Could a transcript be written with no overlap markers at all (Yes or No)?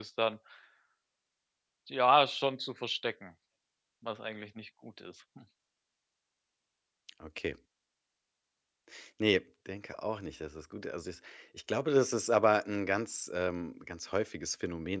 Yes